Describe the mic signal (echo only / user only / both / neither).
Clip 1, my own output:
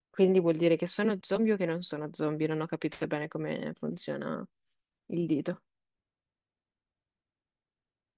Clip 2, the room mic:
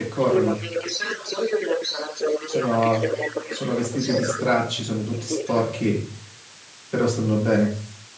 both